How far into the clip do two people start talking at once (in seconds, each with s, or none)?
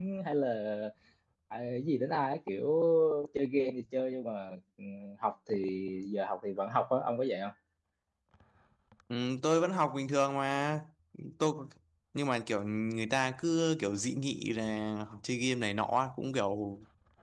none